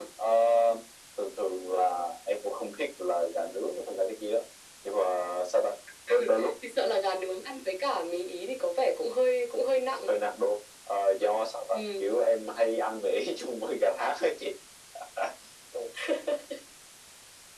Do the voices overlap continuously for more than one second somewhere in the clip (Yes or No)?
No